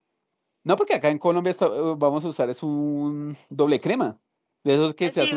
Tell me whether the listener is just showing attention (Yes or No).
No